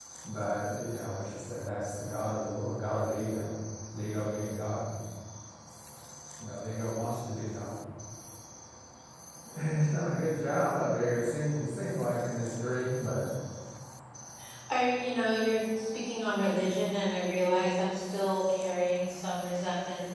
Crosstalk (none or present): none